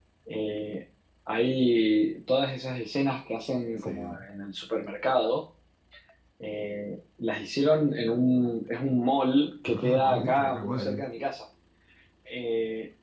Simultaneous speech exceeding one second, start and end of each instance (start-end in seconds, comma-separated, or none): 9.7-11.0